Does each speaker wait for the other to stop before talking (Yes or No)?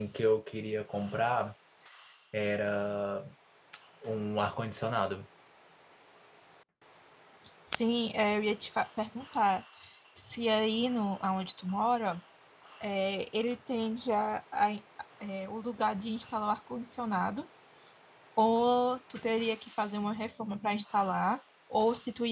Yes